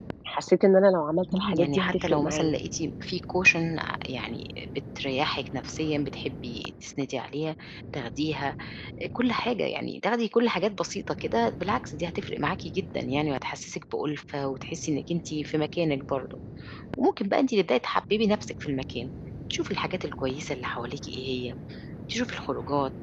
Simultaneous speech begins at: 1 s

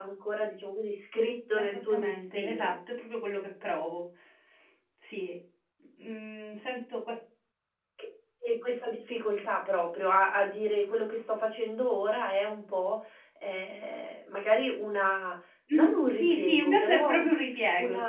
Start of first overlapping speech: 2 s

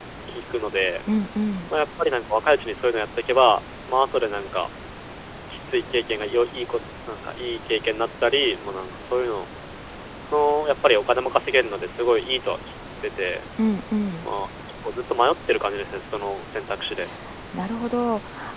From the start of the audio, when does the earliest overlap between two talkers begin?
none

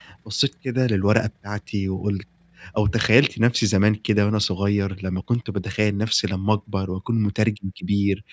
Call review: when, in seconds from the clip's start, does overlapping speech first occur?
none

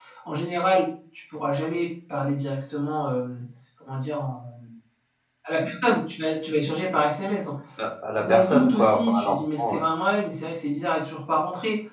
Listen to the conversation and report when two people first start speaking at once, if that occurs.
8 s

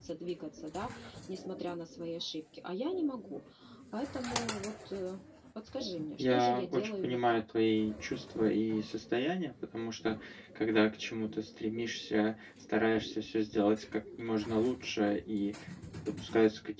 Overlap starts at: 6 s

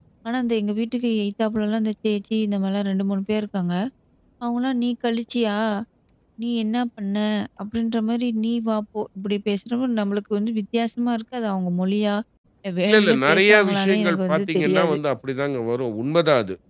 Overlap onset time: 13 s

